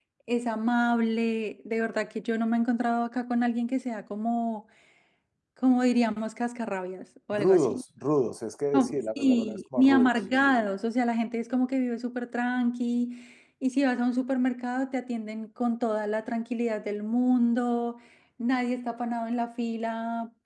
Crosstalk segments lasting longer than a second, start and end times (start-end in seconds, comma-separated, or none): 8.7-10.1